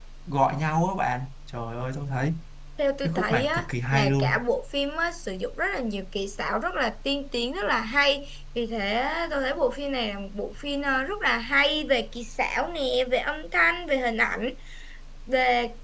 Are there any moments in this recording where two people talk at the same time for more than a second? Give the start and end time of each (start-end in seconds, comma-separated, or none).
3.0-4.4